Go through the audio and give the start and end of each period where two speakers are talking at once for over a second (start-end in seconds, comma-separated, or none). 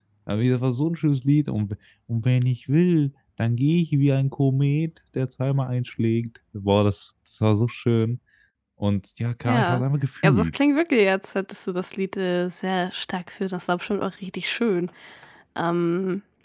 none